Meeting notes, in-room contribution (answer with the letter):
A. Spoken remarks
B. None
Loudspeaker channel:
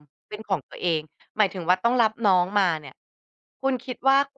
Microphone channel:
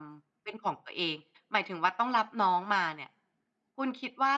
B